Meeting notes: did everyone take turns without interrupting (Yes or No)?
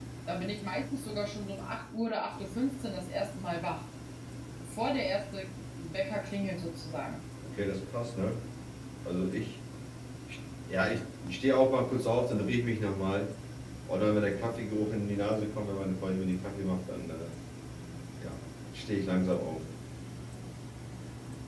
Yes